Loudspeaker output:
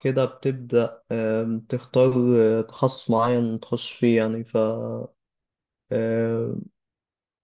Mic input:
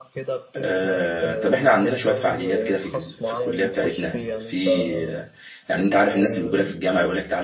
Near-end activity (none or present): present